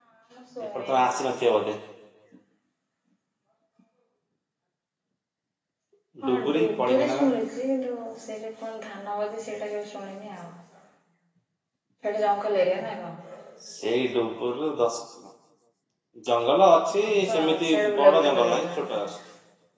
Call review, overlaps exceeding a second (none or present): present